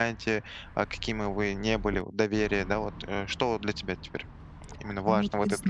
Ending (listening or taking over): taking over